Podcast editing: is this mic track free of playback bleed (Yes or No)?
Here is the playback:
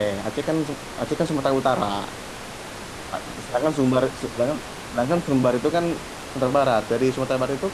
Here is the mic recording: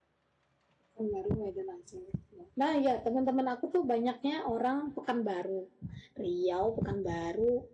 Yes